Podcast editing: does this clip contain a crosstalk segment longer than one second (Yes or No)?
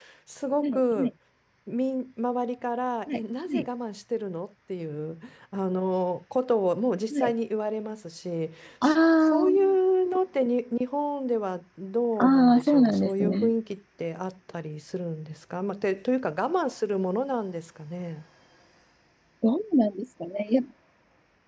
Yes